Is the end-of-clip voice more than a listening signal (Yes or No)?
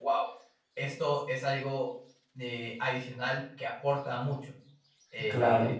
No